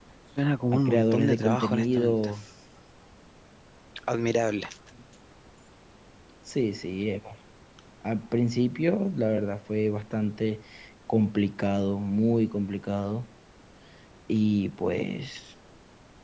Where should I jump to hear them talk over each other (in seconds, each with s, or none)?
0.7 s